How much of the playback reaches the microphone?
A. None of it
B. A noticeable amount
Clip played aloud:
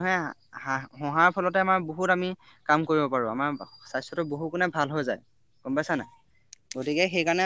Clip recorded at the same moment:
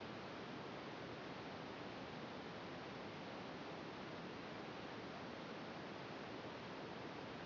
A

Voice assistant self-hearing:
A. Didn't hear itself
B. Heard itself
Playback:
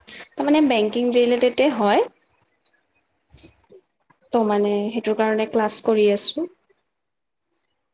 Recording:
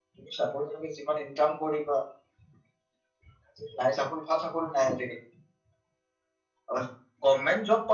A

